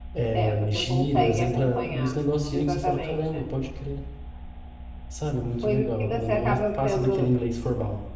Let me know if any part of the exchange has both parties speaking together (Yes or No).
Yes